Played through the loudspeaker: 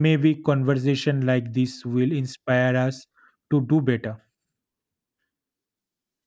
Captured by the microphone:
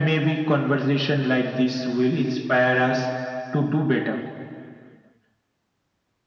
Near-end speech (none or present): none